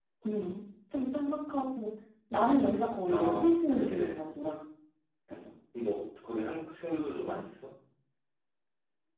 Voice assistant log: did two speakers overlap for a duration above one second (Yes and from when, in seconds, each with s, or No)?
Yes, from 3.1 s